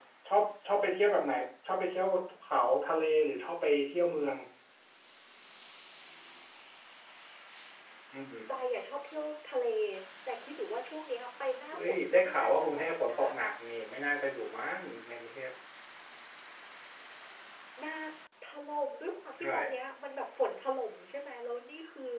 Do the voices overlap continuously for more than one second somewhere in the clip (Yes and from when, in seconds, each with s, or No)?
Yes, from 11.7 s